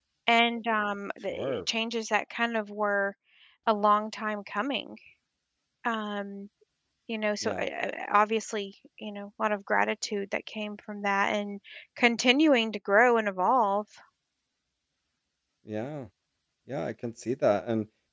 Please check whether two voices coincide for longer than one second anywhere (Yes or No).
No